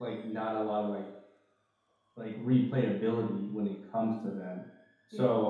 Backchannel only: Yes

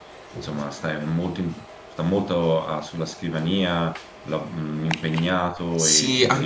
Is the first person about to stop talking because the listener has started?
Yes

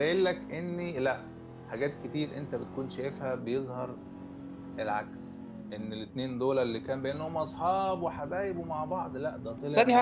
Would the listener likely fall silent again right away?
No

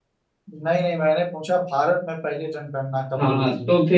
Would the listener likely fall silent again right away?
No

